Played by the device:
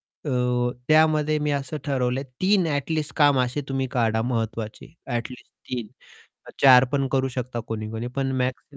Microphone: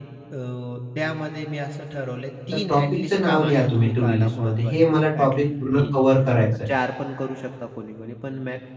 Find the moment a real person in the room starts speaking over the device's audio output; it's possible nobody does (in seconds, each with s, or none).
2.5 s